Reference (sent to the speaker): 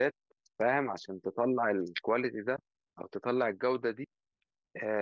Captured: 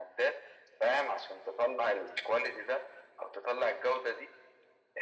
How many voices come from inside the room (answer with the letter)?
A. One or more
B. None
B